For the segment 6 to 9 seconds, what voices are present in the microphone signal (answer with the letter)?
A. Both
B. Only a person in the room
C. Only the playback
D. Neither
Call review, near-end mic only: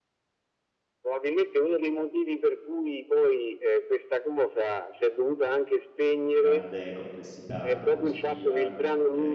A